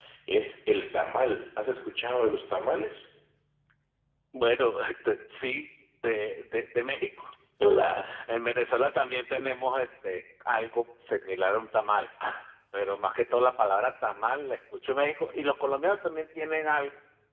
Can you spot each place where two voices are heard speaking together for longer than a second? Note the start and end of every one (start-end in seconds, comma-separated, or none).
none